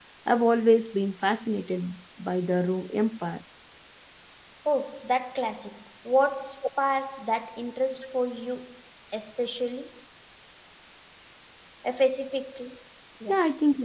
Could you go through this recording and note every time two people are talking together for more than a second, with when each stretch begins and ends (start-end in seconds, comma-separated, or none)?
none